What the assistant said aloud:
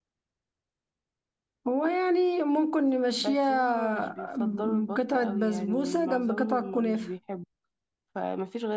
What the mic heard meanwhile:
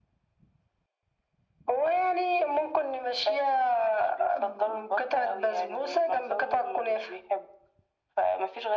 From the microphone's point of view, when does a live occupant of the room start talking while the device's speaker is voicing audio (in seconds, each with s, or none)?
none